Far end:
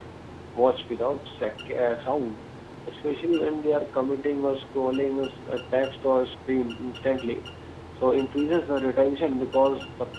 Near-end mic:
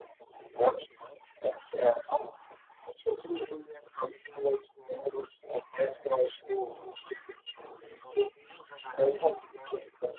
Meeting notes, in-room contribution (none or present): none